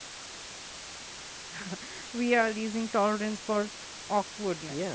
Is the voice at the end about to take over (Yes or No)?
Yes